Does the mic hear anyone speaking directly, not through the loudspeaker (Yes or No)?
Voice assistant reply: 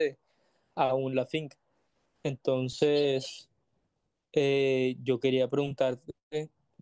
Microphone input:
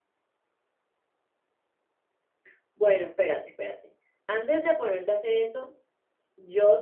Yes